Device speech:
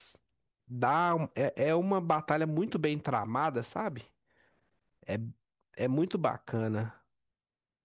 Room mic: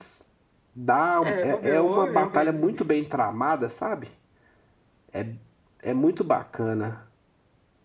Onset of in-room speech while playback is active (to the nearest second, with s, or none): 1 s